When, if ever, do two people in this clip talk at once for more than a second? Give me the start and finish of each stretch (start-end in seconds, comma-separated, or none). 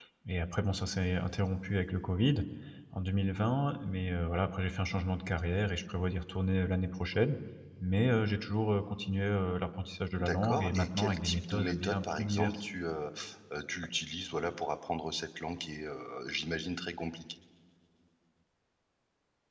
10.2-12.5